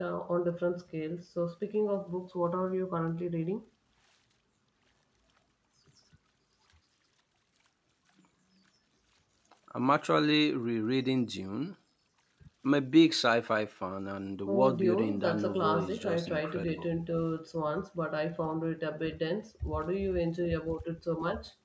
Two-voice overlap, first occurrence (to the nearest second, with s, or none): 14 s